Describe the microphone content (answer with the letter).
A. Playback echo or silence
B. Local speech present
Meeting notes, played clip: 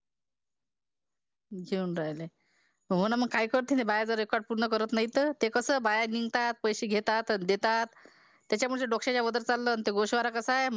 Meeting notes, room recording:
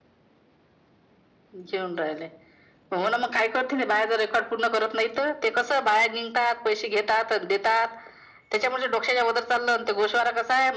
A